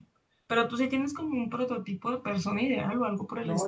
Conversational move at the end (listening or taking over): taking over